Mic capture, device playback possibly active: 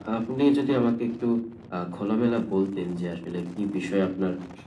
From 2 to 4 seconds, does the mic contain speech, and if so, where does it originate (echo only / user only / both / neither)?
echo only